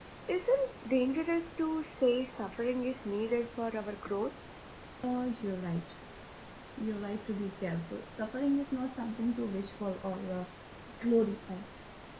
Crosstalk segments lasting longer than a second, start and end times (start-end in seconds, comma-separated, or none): none